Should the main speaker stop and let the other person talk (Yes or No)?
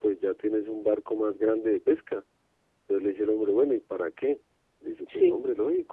No